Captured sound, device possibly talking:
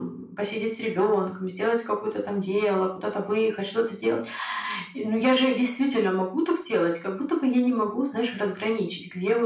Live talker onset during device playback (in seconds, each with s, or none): none